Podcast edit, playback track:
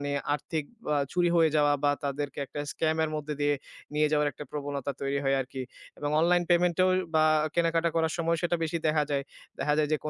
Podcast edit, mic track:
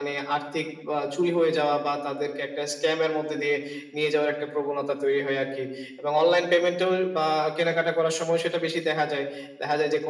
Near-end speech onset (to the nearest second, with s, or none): none